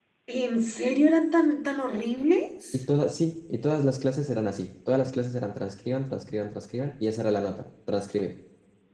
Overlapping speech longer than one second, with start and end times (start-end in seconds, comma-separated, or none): none